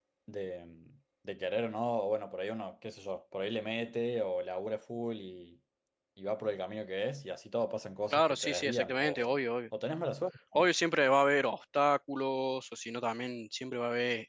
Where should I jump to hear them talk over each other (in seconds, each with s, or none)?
8.1 s